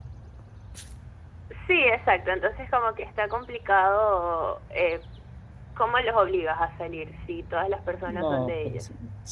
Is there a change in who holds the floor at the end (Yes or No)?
Yes